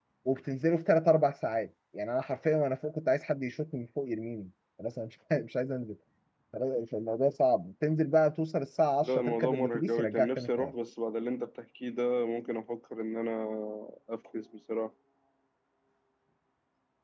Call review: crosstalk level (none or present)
present